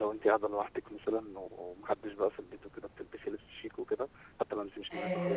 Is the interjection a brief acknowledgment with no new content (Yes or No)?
No